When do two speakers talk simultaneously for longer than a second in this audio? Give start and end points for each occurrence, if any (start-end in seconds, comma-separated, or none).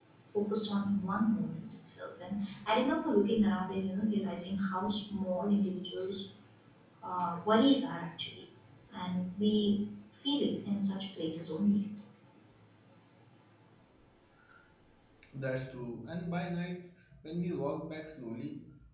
none